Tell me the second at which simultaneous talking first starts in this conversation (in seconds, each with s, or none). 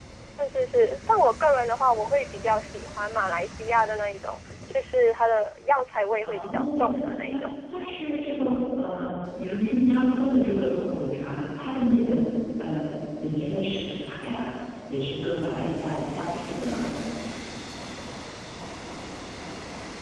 6.2 s